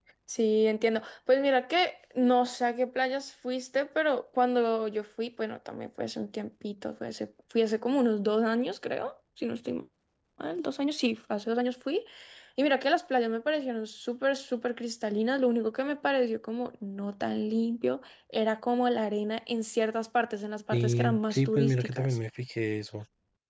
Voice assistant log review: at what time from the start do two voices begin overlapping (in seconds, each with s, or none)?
20.7 s